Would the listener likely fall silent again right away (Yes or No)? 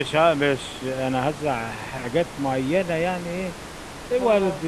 Yes